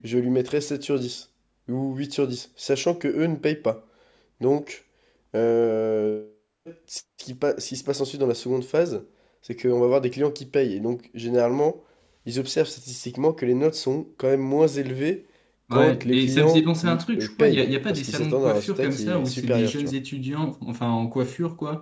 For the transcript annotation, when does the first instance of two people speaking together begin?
15.7 s

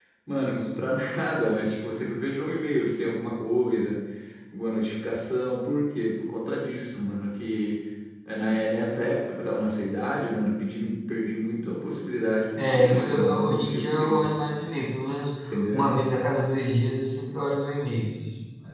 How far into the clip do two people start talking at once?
12.6 s

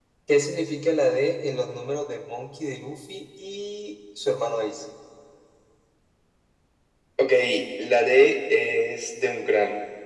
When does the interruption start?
none

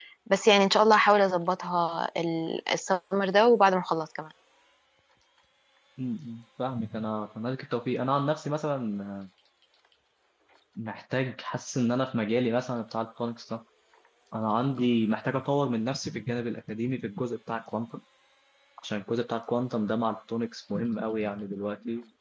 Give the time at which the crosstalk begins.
none

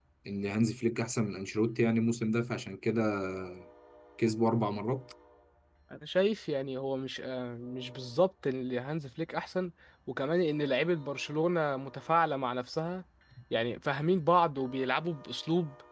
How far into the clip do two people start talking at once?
none

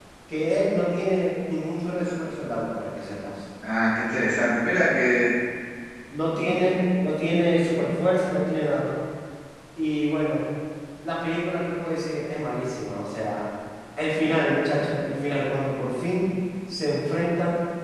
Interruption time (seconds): none

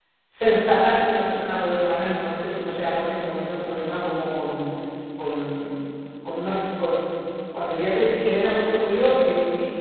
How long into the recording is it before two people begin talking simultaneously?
none

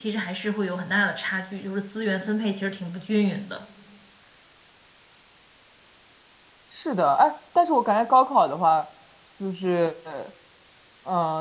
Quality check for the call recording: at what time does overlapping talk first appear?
none

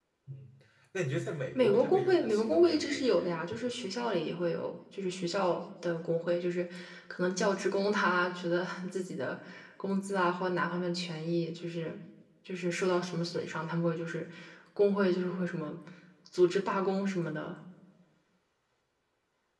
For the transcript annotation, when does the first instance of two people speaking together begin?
1.6 s

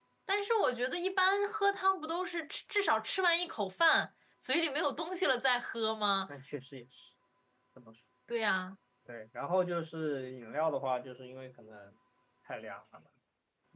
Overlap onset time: none

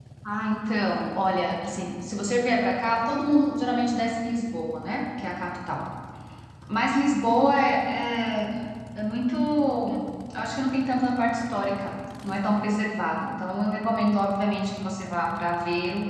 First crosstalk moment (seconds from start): none

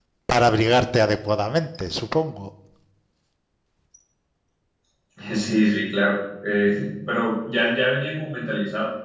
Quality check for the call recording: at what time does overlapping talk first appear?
none

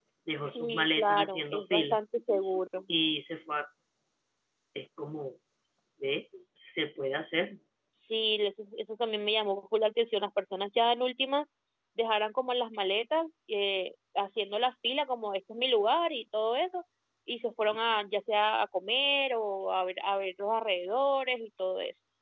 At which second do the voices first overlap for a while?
0.6 s

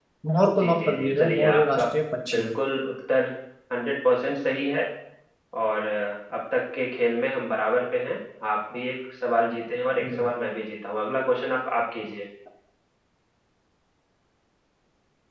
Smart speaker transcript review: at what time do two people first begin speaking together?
0.6 s

